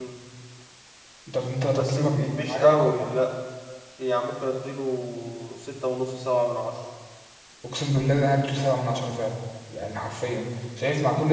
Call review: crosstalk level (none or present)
present